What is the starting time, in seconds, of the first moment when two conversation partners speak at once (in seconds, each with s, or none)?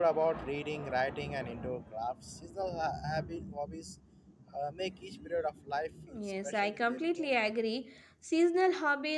6.1 s